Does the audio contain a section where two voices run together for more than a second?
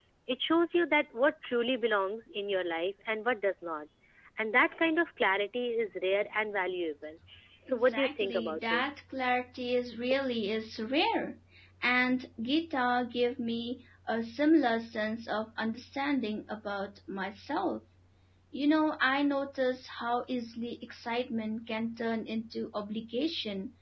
Yes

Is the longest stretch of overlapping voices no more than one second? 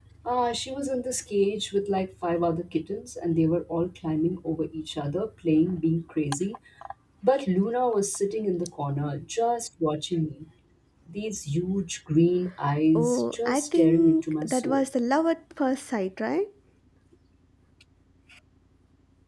No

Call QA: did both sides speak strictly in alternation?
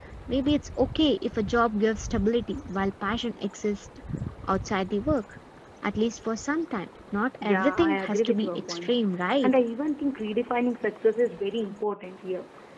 No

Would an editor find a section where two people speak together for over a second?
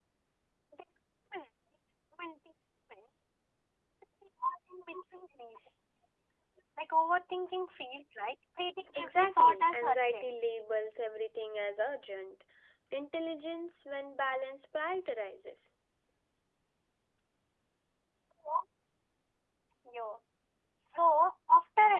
Yes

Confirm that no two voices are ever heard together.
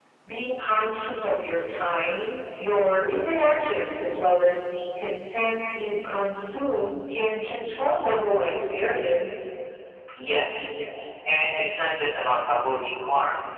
Yes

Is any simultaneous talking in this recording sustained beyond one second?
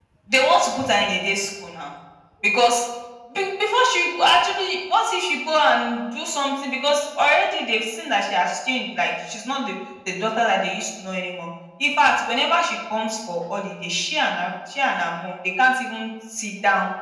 No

